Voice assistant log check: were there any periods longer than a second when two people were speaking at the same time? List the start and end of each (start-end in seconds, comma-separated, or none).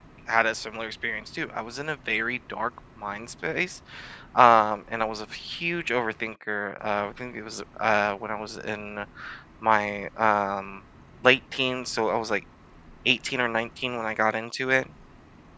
none